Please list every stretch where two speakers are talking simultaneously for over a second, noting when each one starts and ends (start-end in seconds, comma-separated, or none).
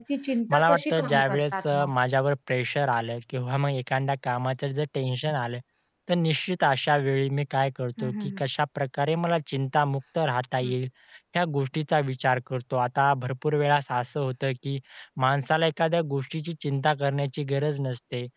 0.5-1.9